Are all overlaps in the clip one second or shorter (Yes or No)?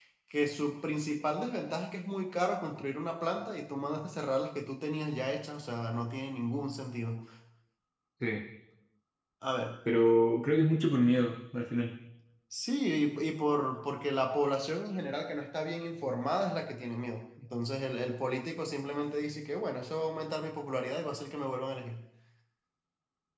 Yes